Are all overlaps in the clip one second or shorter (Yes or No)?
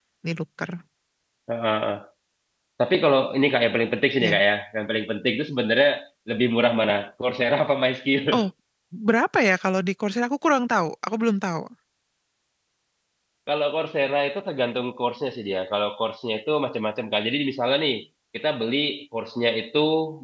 Yes